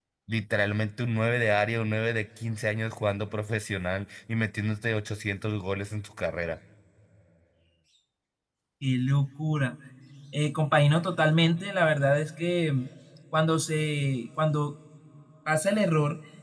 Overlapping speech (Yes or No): No